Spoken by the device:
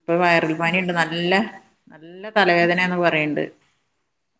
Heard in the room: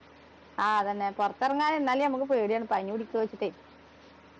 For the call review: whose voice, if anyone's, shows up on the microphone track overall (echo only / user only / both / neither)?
user only